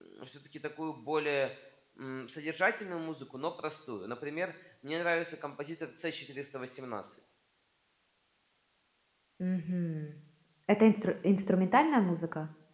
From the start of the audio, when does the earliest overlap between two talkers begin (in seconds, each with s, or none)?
none